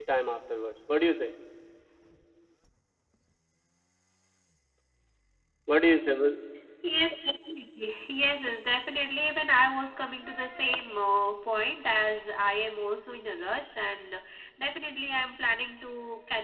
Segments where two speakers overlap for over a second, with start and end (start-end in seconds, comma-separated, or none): none